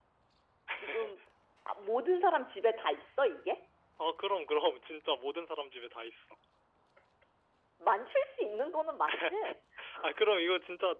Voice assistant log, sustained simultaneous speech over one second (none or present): none